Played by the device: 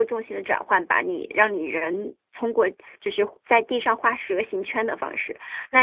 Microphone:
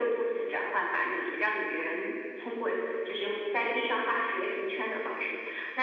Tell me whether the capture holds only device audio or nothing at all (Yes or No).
Yes